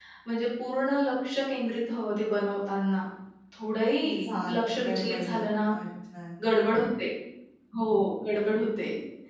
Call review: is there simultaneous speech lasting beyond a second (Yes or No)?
Yes